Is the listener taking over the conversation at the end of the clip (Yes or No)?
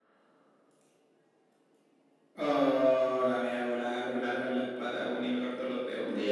No